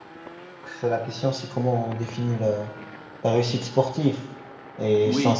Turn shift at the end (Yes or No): No